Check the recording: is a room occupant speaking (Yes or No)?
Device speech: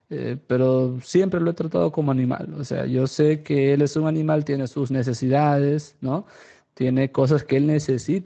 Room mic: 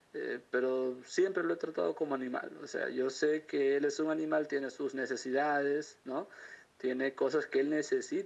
No